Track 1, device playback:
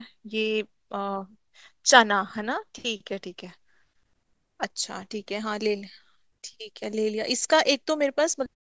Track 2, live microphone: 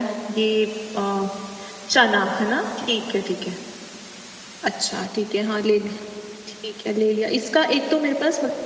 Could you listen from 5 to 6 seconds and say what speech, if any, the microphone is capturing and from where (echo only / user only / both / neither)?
echo only